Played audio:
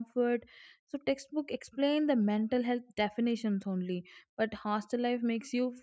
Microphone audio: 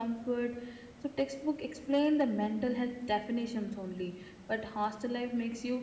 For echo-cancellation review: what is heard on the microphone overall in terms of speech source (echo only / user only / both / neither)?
echo only